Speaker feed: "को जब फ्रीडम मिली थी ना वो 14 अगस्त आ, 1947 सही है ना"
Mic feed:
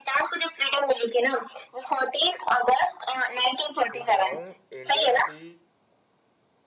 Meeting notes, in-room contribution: present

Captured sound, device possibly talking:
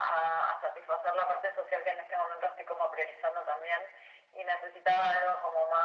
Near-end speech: none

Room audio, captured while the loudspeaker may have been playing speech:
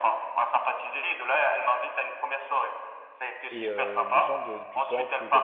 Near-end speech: present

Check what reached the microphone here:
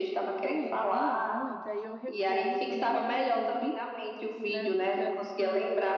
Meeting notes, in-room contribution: present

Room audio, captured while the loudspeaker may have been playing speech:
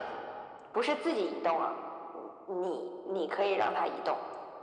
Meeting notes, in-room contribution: none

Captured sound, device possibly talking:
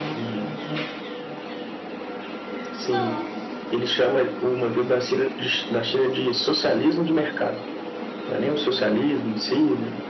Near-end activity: present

